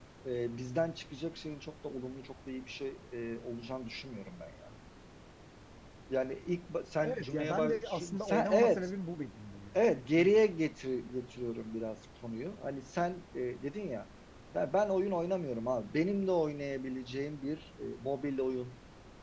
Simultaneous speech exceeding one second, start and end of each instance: 7.0-8.9

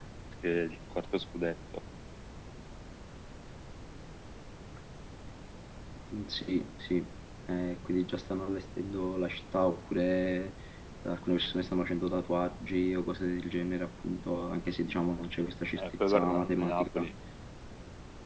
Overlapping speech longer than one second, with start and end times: 15.8-17.1

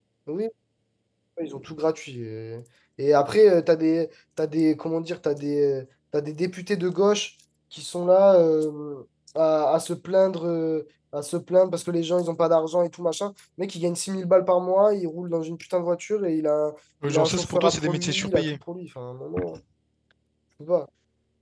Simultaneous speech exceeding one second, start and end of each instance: 17.1-18.6

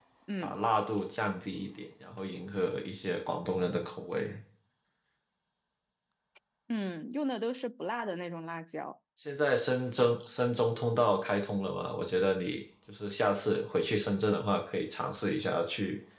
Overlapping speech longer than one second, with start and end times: none

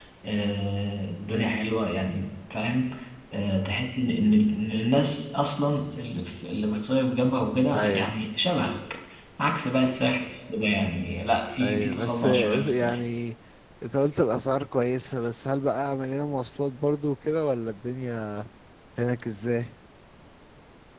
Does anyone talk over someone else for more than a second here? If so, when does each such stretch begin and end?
11.6-13.0

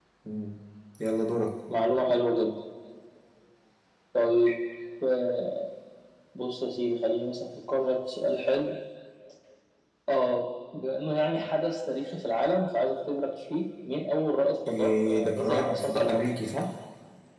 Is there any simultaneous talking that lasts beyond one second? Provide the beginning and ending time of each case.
14.7-16.3

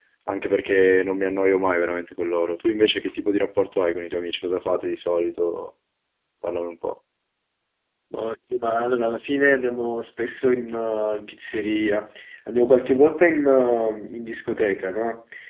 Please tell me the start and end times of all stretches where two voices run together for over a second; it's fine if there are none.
none

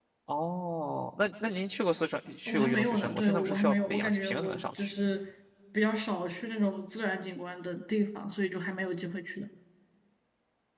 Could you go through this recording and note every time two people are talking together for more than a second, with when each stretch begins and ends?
2.5-4.9

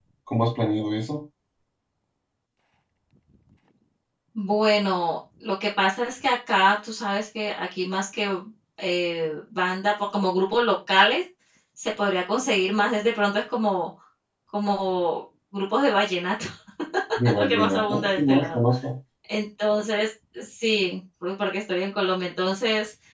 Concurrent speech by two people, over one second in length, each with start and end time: 17.3-18.6

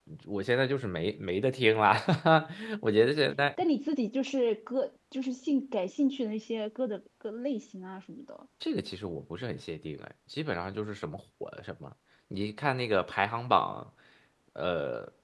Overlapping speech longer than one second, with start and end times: none

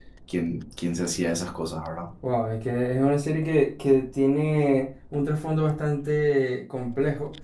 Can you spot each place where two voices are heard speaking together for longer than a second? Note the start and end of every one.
none

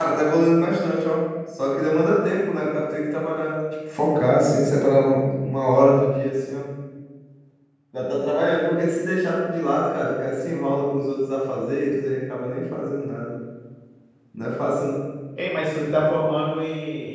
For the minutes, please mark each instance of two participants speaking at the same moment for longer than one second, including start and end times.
none

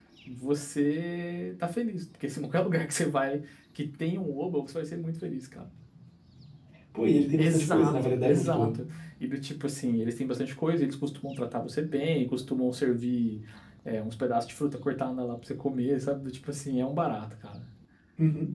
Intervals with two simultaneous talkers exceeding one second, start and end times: 7.4-8.7

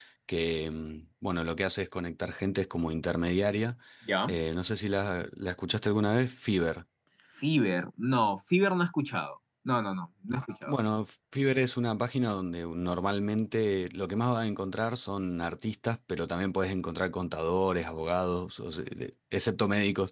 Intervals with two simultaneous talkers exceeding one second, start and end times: none

